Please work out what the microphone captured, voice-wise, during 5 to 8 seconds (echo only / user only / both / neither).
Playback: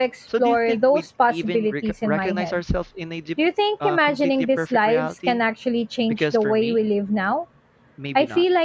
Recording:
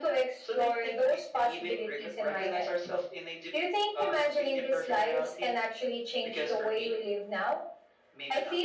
echo only